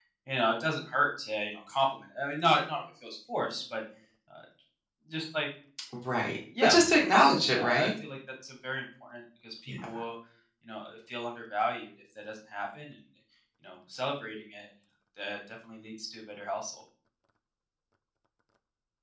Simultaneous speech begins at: 6.6 s

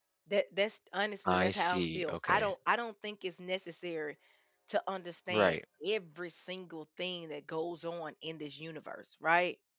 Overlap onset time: 1.2 s

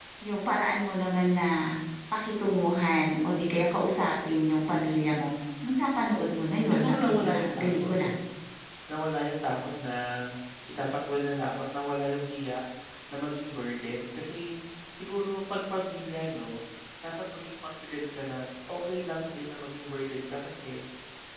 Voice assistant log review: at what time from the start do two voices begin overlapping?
6.4 s

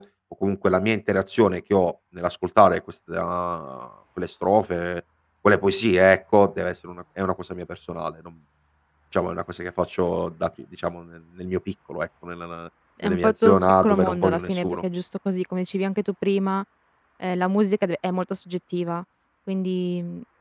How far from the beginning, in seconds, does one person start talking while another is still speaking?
13.0 s

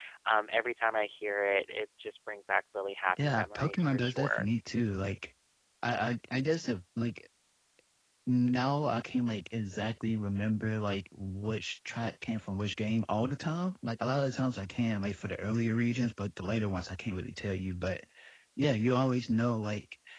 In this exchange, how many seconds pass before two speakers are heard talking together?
3.2 s

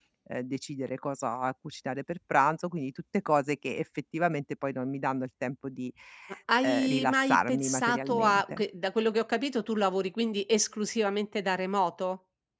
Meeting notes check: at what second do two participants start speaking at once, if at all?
6.6 s

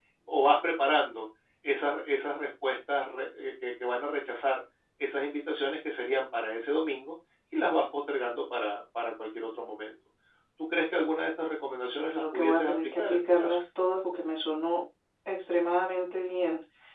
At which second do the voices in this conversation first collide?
11.8 s

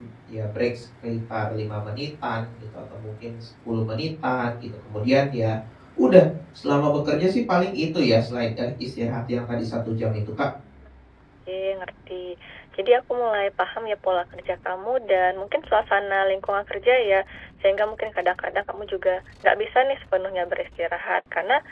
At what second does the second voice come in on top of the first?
none

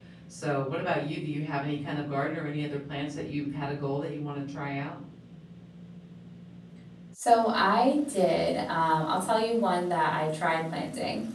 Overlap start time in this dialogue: none

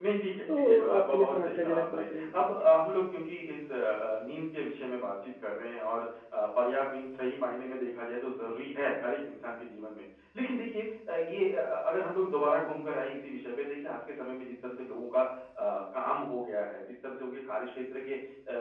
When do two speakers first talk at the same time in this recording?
0.5 s

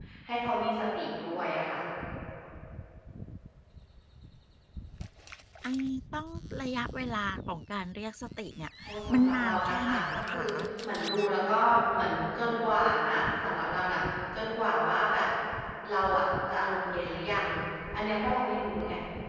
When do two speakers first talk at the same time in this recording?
9.1 s

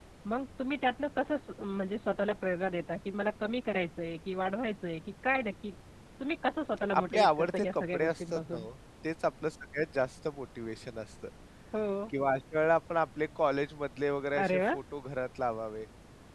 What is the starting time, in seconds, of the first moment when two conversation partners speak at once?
7.0 s

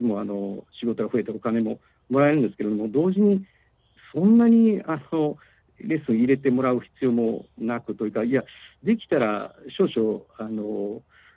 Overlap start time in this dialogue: none

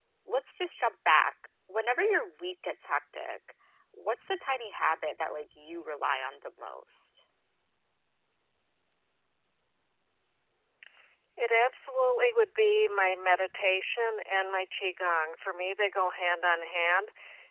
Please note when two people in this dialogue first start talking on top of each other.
none

